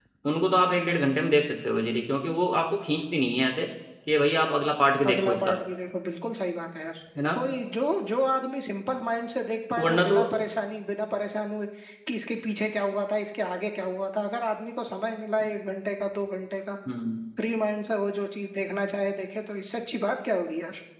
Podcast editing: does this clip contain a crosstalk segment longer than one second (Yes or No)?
No